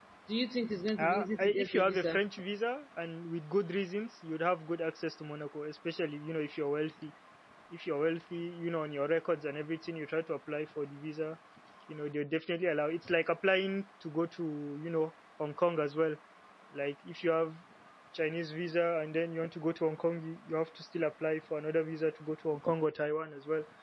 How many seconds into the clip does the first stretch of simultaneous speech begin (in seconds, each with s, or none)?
1.0 s